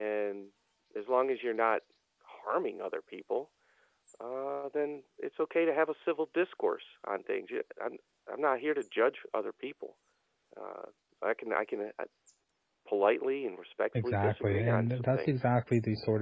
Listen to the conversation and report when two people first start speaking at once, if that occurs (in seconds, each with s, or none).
13.9 s